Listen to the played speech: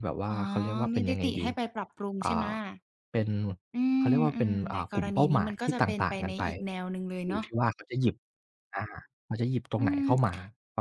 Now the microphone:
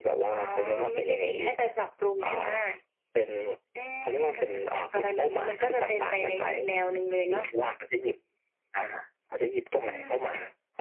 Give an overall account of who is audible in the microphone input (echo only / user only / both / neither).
echo only